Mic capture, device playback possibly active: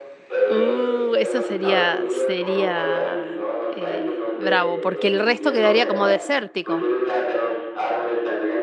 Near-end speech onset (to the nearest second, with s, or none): 0 s